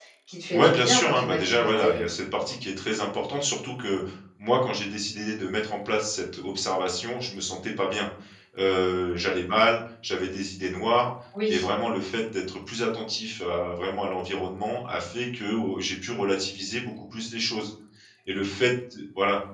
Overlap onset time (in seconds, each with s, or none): 0.5 s